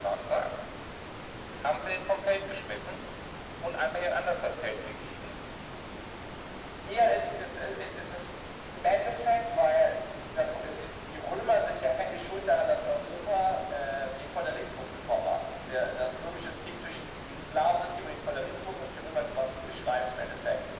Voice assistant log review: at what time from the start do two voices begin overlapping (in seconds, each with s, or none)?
none